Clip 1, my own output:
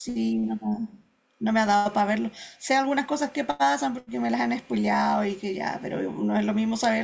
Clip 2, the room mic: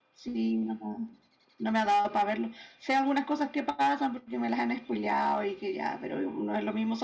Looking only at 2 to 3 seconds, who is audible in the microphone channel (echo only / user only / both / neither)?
echo only